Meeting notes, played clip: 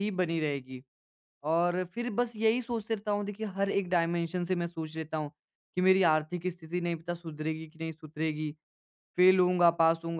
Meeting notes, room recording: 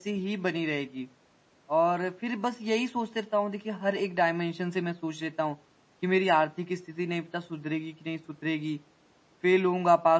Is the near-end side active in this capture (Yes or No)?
No